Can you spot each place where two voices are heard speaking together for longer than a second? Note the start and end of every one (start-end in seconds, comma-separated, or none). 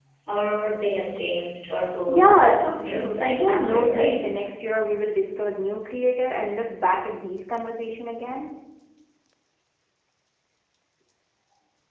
2.1-4.2